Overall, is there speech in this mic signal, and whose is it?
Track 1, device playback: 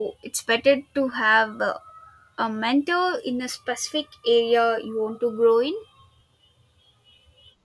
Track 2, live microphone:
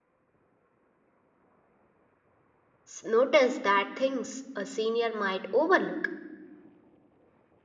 user only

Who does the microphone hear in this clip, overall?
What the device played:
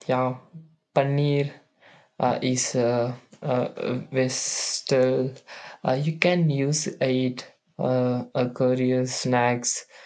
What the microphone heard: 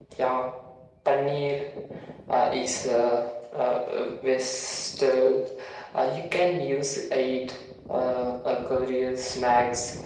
echo only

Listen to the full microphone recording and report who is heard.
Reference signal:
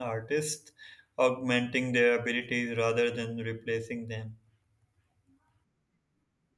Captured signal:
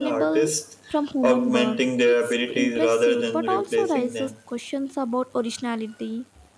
both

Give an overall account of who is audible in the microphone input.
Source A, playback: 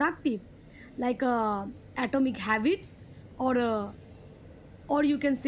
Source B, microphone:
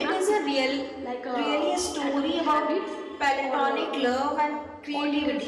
both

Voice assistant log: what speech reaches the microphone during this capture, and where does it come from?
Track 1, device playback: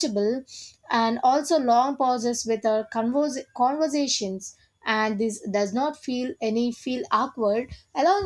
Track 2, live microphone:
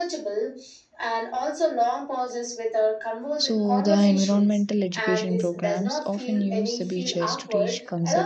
both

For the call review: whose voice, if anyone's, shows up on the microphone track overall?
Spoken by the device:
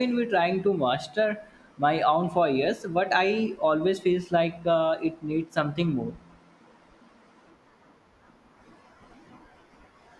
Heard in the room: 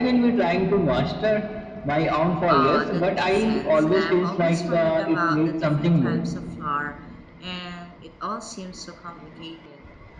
both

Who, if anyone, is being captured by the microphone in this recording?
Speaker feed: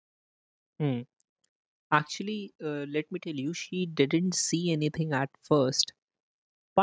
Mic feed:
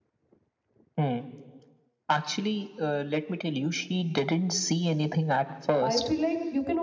both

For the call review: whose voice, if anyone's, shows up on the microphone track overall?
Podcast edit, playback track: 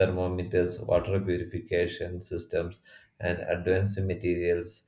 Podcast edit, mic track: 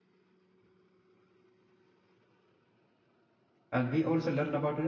user only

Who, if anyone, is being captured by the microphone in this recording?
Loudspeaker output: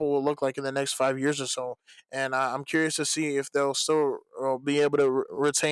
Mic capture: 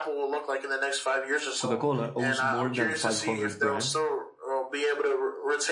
both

